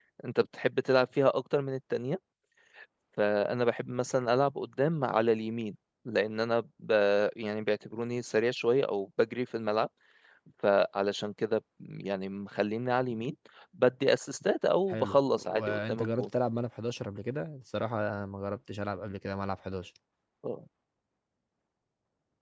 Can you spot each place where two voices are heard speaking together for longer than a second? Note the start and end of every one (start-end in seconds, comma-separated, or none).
14.9-16.2